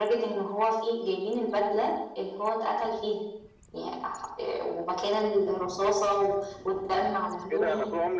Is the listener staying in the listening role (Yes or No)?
No